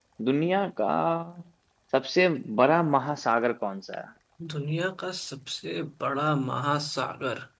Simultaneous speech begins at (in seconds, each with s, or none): none